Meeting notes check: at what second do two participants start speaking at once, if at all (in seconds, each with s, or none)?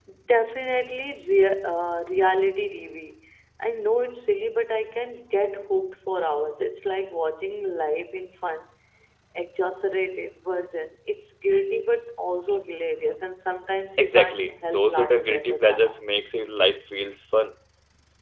14.0 s